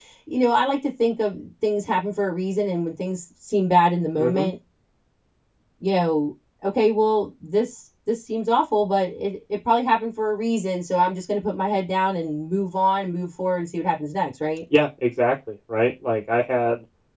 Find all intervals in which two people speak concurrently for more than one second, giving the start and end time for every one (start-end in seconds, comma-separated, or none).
none